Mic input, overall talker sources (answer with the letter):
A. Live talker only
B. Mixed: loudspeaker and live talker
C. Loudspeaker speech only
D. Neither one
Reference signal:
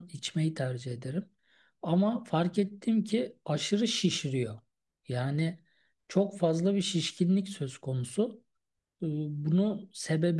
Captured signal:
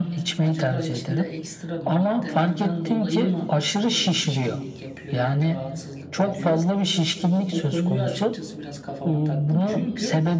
B